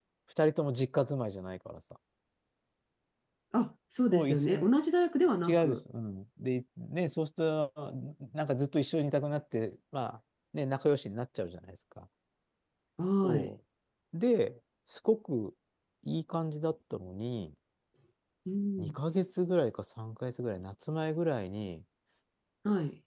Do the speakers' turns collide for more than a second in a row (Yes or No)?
No